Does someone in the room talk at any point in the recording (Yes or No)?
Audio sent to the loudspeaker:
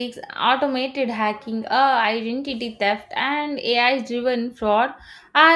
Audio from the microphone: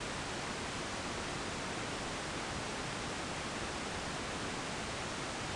No